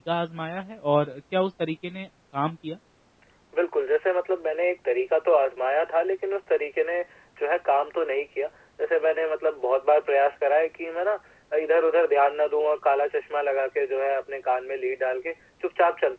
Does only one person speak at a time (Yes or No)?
Yes